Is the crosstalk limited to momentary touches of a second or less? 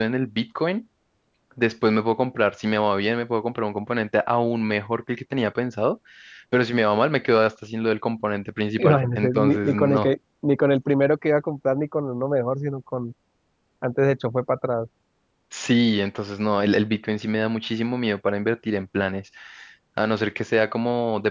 No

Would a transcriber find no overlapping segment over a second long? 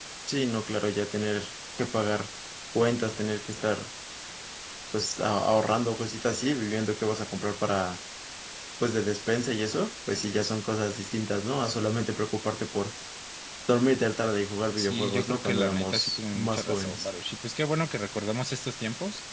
No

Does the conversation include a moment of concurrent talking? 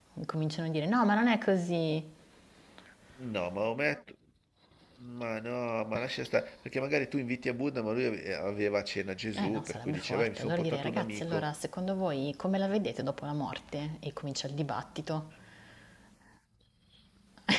Yes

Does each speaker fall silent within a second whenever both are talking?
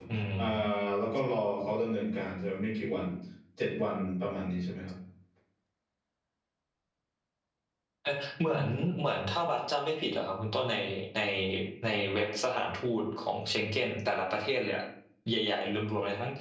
Yes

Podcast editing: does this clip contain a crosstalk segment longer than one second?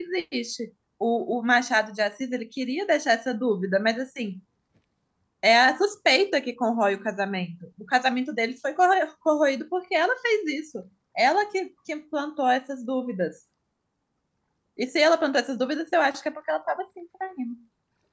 No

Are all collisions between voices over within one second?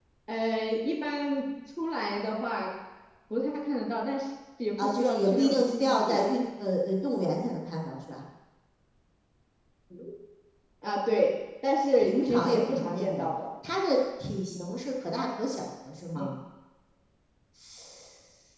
No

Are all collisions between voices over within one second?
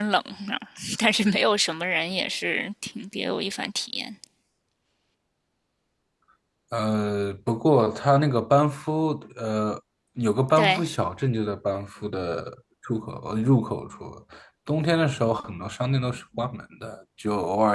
Yes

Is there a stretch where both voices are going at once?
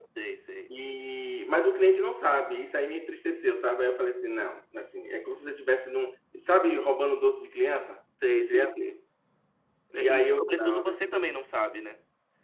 Yes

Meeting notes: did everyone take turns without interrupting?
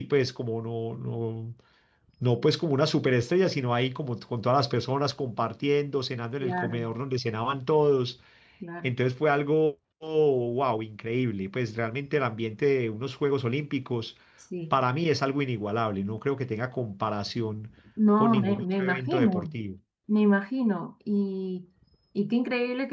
No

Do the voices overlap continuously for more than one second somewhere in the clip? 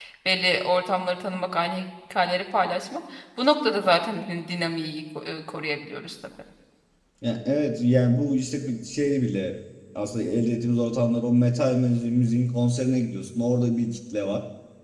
No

